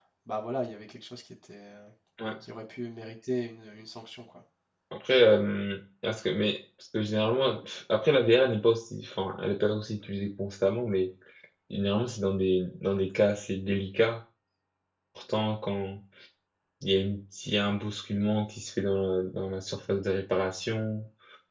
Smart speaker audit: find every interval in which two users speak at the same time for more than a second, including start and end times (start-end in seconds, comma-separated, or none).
none